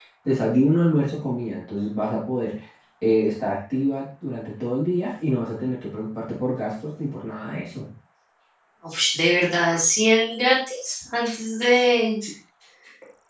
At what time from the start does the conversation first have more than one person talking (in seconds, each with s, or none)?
none